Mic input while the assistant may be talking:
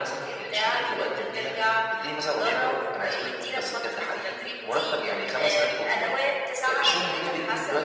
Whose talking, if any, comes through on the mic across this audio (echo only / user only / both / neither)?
echo only